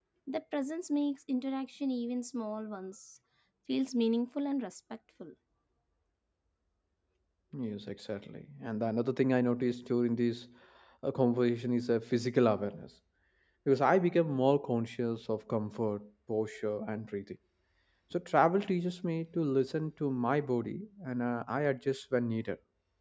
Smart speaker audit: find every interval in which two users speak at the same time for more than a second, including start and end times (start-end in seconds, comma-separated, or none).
none